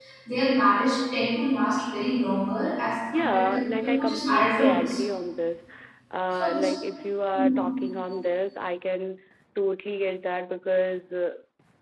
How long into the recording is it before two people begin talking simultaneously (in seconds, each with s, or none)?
3.1 s